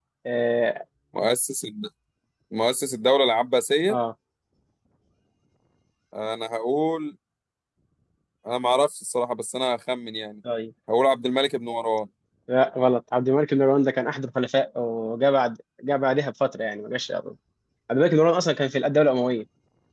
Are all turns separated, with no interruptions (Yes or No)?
Yes